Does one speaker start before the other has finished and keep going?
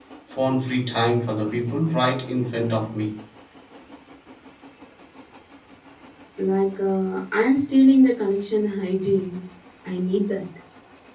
No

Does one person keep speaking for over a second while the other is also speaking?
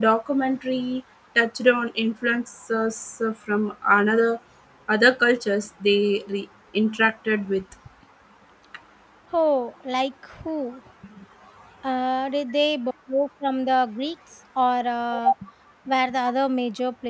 No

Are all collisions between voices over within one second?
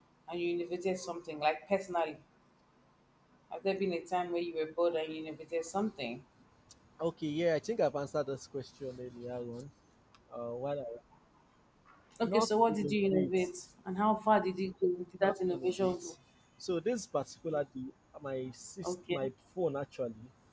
No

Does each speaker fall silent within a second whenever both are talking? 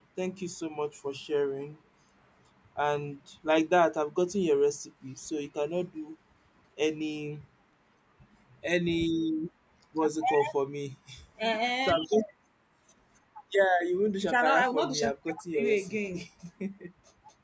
No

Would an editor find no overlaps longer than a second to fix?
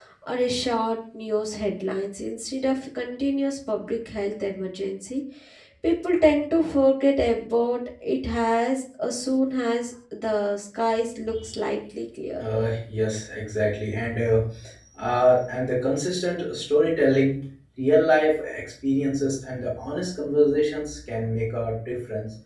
Yes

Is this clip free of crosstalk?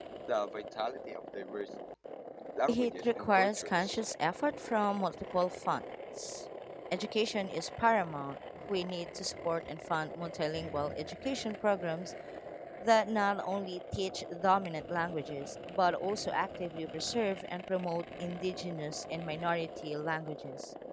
No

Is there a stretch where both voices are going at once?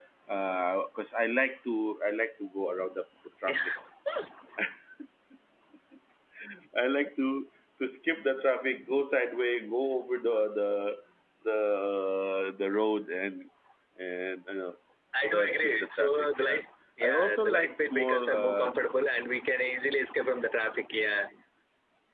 Yes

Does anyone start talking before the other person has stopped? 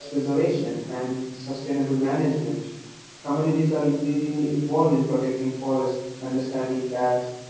No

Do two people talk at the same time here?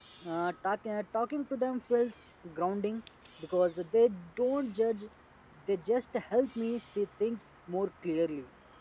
No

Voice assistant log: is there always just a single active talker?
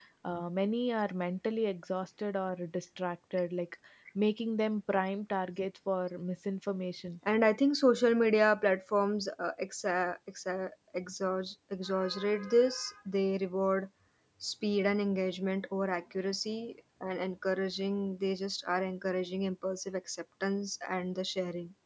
Yes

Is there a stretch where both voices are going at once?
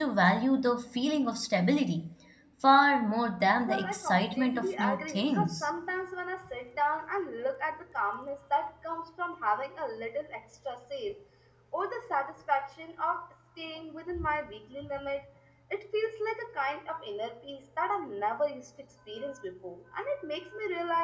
Yes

